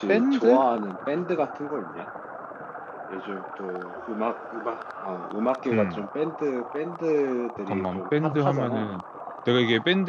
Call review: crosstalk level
present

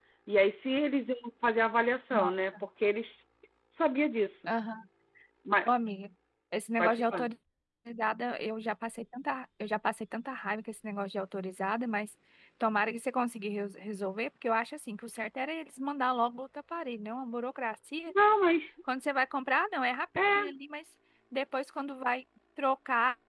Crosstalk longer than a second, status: none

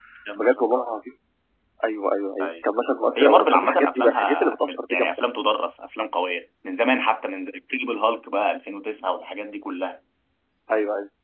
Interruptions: present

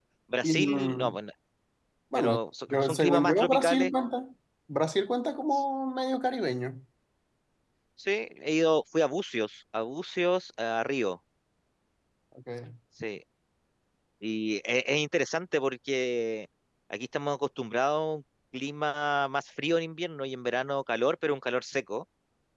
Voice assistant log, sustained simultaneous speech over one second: present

